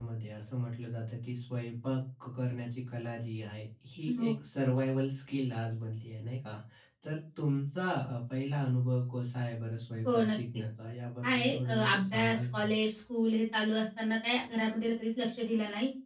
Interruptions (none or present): present